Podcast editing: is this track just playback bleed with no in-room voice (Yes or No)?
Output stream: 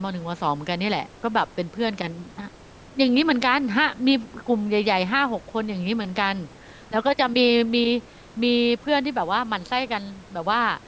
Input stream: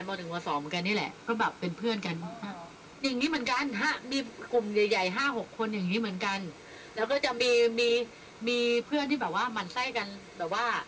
No